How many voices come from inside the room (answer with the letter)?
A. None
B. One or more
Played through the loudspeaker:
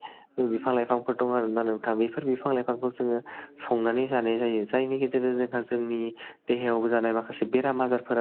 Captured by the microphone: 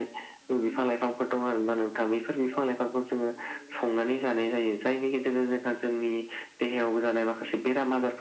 A